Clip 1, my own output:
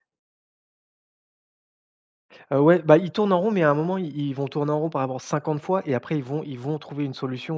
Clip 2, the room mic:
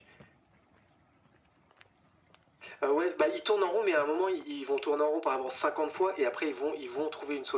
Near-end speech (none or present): none